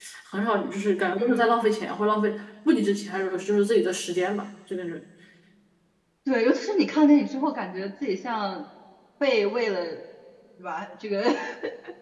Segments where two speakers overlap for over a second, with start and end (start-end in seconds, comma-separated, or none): none